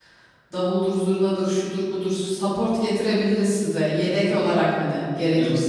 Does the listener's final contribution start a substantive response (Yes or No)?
Yes